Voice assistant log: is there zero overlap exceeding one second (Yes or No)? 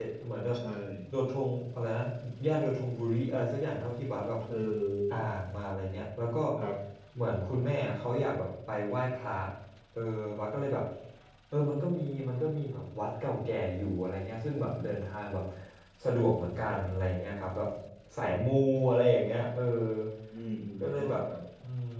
Yes